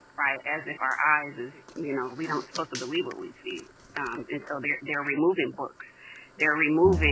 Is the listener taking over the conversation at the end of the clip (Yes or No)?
No